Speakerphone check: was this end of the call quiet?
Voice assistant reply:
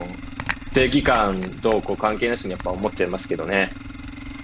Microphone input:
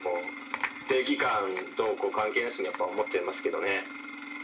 Yes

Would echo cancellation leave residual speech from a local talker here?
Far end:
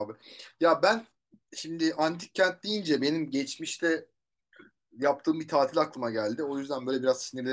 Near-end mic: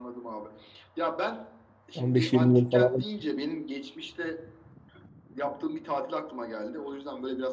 Yes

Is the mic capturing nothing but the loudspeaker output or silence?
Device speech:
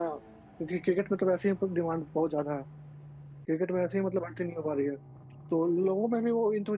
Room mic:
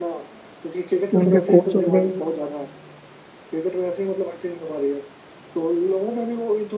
No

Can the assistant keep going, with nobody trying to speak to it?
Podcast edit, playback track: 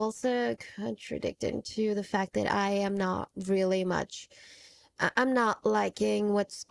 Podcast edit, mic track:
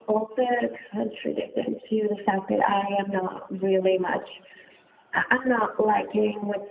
Yes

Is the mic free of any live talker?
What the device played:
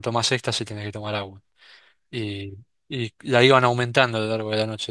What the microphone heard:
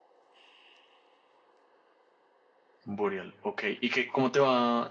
No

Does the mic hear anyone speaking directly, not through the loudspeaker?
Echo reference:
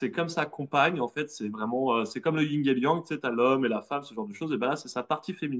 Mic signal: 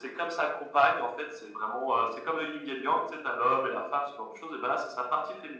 No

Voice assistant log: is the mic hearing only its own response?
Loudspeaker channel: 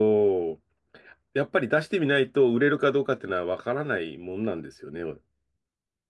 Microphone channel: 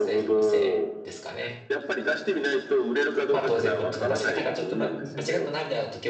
No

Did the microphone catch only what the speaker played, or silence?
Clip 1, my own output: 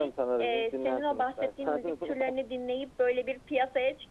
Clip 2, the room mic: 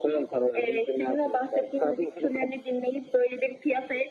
Yes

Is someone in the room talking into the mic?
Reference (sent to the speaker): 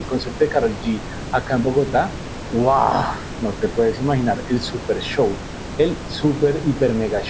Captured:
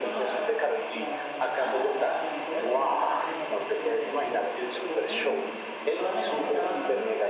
Yes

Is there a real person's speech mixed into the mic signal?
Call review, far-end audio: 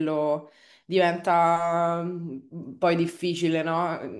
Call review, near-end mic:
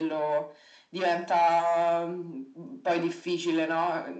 No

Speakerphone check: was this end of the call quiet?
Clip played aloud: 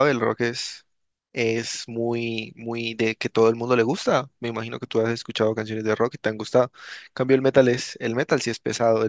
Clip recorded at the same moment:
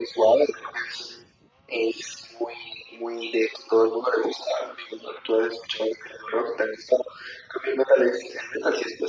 Yes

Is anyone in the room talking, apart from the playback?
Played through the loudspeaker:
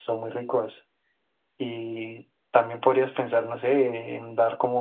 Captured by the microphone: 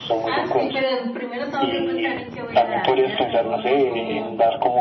Yes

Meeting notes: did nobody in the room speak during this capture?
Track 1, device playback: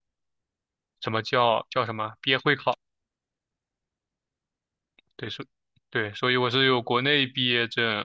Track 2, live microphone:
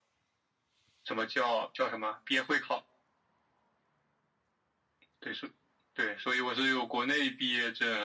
Yes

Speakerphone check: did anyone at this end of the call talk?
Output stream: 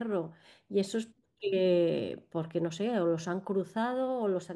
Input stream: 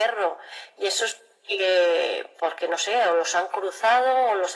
No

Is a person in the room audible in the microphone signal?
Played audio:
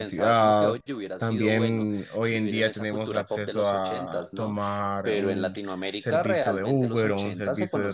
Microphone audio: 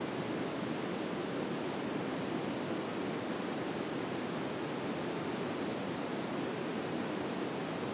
No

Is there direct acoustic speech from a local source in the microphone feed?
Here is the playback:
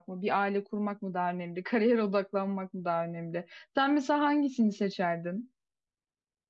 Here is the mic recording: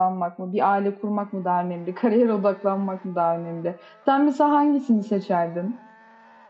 No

